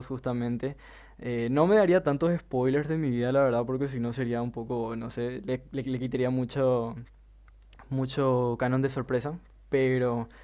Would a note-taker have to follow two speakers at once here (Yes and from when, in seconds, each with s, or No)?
No